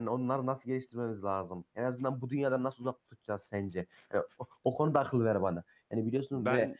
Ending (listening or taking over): listening